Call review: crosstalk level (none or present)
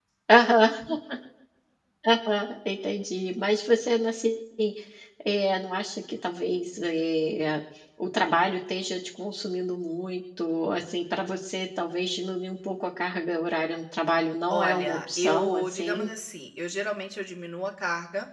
present